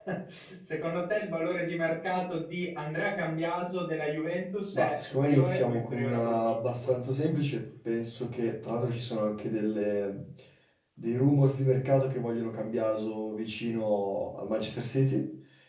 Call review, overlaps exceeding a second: present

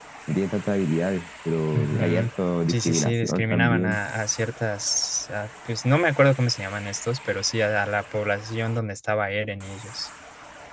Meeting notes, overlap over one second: present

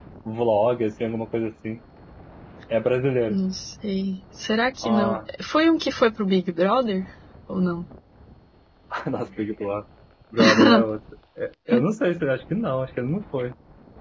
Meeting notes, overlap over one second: none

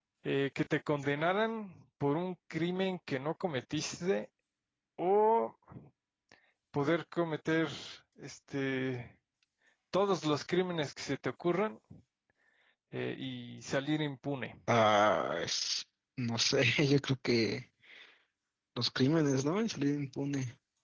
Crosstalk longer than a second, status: none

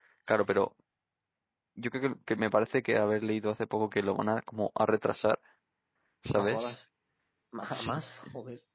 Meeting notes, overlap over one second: none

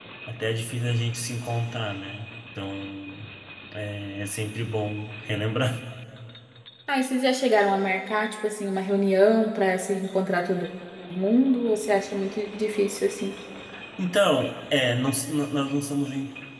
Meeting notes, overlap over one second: none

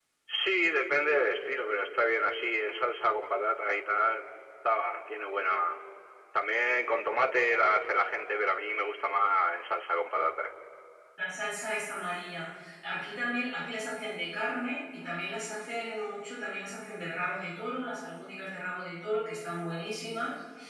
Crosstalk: none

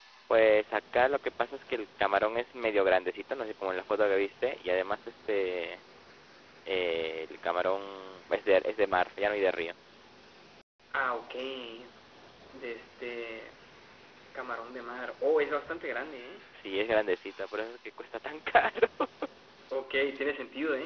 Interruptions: none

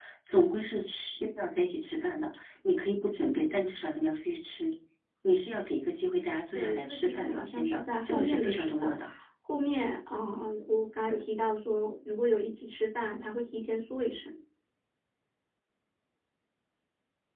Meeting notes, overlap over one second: present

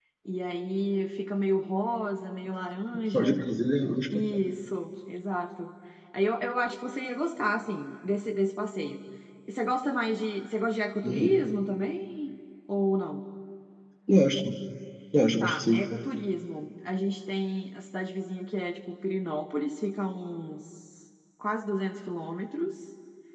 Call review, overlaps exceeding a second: none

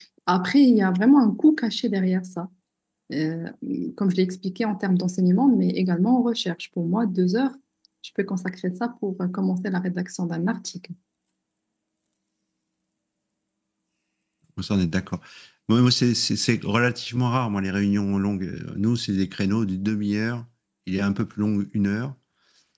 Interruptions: none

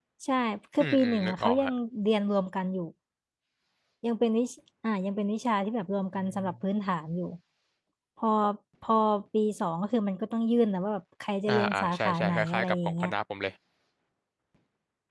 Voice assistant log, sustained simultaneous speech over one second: present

